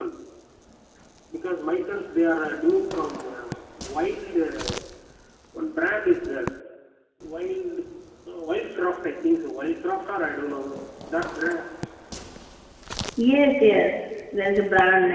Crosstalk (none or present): none